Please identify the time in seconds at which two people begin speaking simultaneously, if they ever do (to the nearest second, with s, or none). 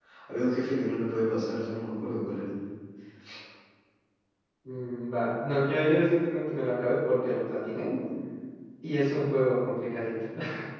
none